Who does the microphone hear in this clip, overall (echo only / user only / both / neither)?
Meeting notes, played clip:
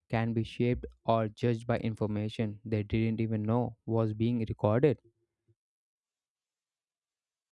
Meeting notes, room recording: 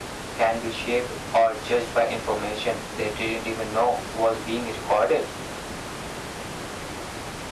echo only